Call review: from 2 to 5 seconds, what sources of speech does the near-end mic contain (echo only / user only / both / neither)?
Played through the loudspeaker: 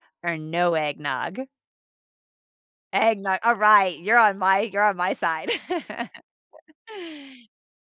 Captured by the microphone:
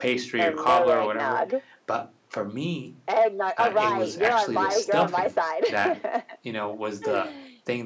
both